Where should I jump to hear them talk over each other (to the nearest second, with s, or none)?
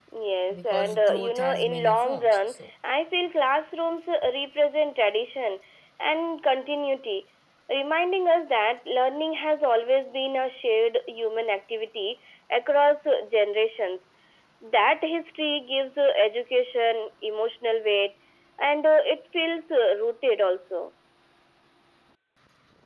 1 s